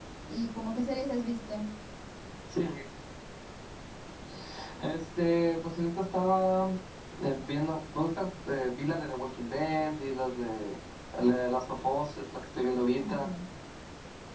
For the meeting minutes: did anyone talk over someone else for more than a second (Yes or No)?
No